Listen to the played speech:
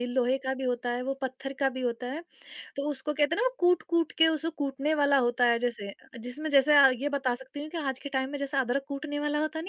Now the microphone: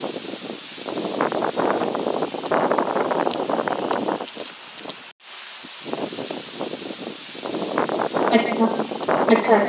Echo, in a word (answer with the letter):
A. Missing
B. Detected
A